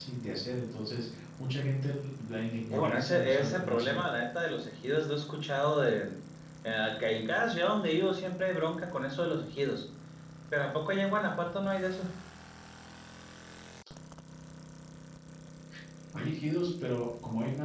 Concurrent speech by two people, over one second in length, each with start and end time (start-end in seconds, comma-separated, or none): 2.7-4.1